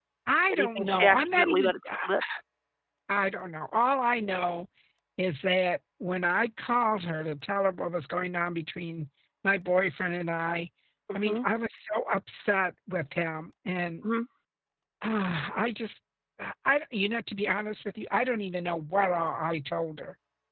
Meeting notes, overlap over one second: present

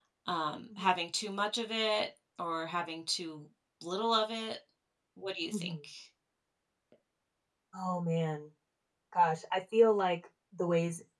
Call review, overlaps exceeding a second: none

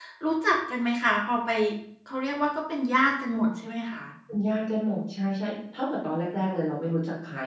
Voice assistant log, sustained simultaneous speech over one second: none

